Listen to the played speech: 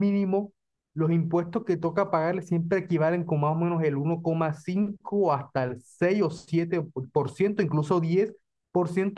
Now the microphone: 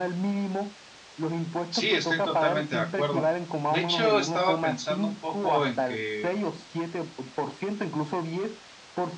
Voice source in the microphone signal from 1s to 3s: both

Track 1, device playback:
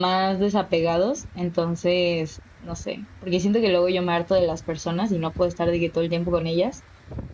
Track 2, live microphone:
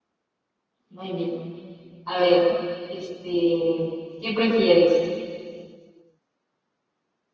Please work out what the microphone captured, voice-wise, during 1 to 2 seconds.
user only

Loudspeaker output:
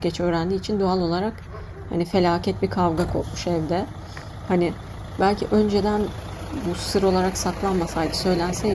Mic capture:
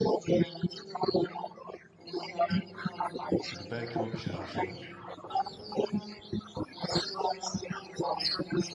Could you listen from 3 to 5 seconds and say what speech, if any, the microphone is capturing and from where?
both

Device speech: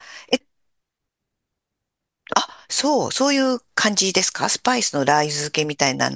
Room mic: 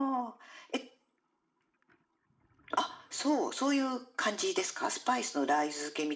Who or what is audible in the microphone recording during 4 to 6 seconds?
echo only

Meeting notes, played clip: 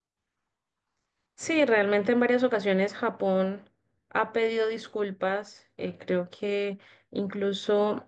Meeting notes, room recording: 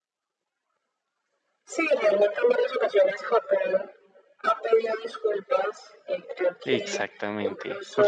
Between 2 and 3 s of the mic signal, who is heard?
echo only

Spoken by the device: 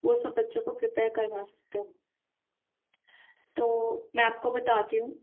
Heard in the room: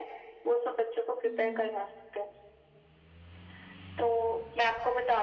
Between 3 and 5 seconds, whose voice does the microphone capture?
echo only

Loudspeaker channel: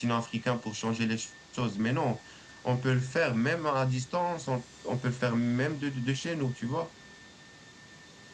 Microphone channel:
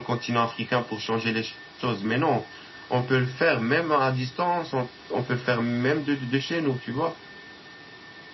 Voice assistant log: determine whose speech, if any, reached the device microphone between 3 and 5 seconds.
echo only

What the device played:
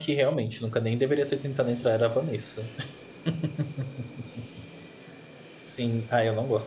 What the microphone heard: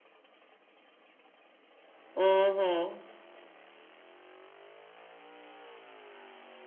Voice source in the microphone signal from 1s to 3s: user only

